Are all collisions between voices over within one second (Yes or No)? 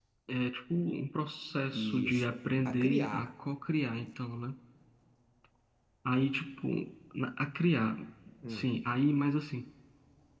No